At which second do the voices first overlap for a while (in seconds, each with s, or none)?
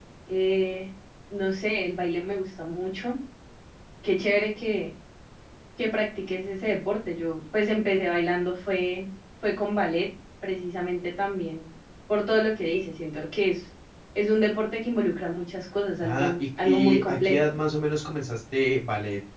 16.0 s